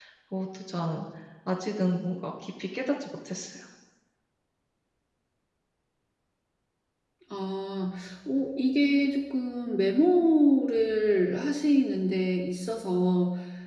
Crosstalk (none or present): none